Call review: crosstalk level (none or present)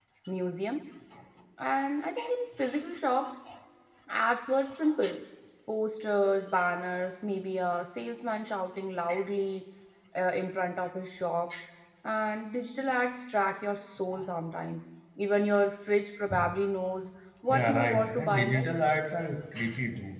present